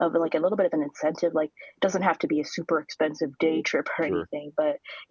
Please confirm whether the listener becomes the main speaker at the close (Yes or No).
No